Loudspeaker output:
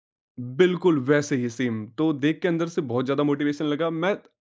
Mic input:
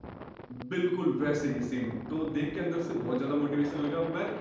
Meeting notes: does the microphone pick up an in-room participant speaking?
No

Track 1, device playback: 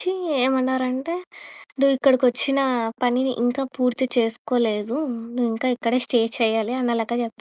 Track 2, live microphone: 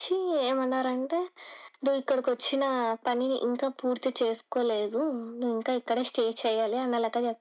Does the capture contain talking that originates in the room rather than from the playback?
No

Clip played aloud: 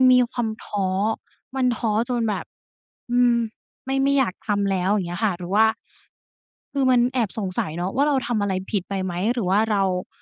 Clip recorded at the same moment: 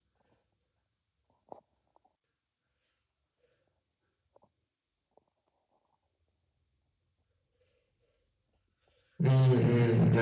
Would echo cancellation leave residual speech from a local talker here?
Yes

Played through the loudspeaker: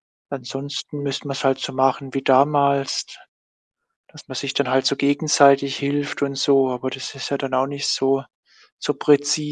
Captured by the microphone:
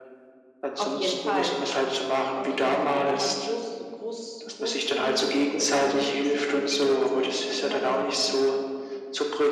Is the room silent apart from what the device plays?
No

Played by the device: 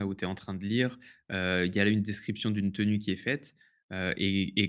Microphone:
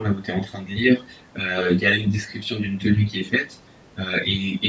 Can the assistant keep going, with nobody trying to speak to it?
Yes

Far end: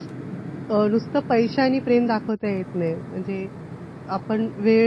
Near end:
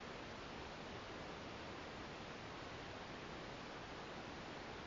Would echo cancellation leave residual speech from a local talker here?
No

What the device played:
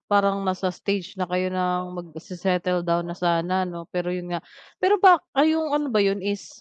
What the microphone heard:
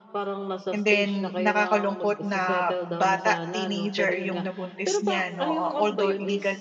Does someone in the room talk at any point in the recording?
Yes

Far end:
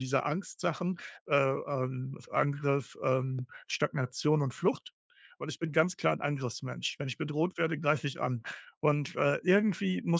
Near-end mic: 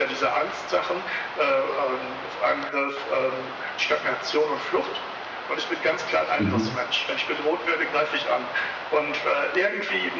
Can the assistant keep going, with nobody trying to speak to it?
No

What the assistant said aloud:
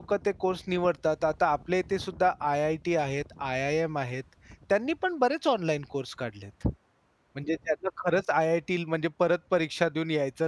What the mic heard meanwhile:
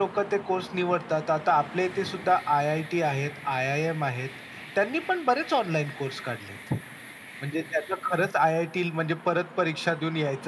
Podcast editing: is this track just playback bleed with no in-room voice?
Yes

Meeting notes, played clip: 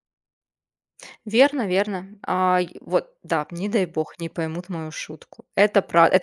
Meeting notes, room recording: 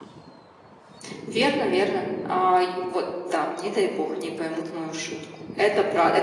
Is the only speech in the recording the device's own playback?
Yes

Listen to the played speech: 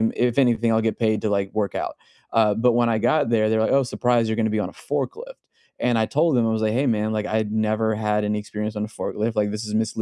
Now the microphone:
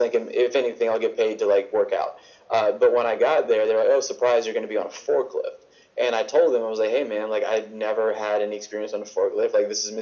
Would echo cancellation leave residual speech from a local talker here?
No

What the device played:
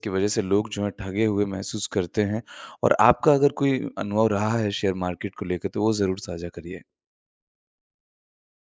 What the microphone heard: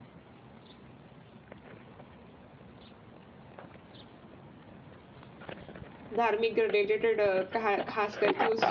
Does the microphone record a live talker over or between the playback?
Yes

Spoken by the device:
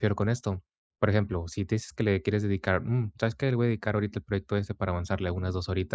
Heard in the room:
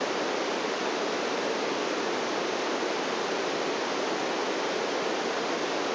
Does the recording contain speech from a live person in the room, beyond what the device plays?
No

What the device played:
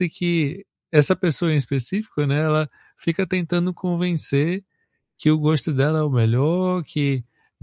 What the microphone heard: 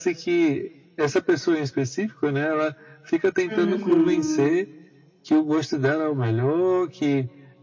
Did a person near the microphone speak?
Yes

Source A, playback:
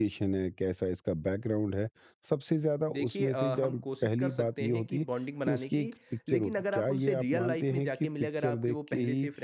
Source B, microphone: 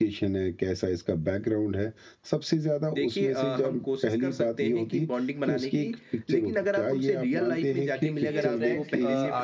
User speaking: Yes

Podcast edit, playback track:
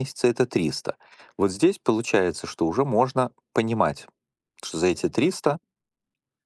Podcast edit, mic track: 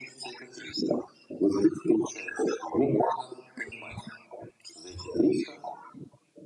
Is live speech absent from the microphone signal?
Yes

